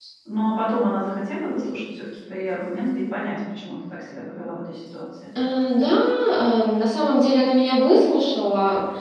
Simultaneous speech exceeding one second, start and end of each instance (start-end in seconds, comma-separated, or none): none